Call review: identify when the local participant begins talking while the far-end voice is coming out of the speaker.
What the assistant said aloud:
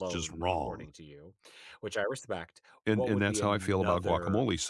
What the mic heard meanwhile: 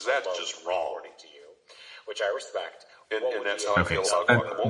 3.8 s

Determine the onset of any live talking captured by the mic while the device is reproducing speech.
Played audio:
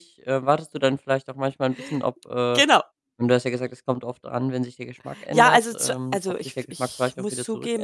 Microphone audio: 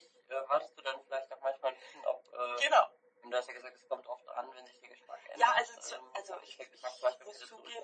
none

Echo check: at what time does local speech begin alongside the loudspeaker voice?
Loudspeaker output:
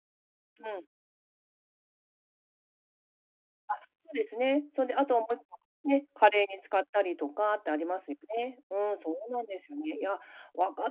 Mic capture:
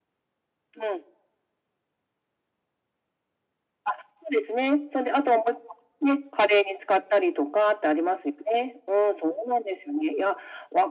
none

